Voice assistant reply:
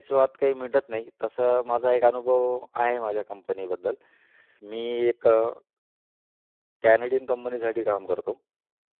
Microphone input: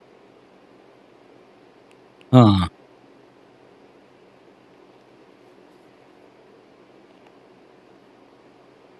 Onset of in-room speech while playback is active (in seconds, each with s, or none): 2.3 s